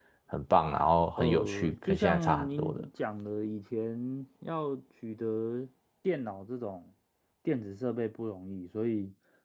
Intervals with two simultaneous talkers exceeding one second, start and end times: 1.2-2.8

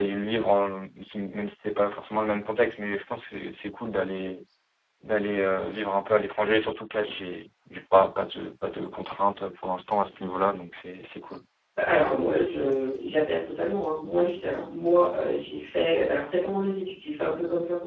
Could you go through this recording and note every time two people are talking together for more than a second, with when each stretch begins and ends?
none

